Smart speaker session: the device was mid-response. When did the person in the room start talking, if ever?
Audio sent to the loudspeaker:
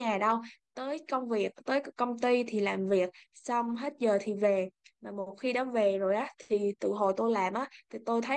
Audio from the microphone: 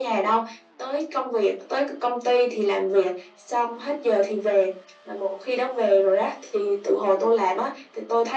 none

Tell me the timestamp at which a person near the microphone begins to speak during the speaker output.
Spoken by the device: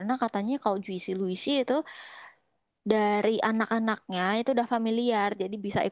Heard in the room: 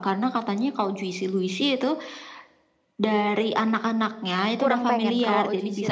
4.6 s

